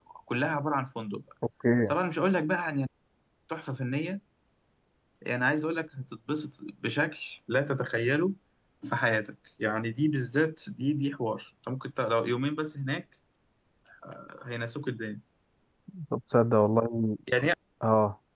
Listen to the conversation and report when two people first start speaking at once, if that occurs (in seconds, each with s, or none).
none